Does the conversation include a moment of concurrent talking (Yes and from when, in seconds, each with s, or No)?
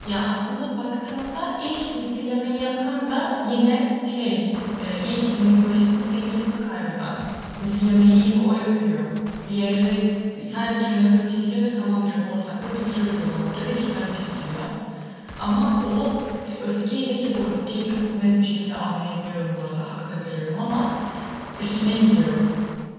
No